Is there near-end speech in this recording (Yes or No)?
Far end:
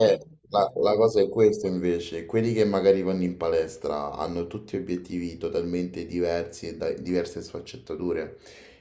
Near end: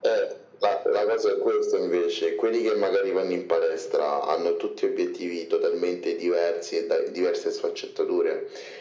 No